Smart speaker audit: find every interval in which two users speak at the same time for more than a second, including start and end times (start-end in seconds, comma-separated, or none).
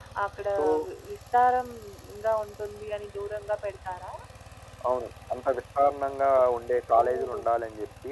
none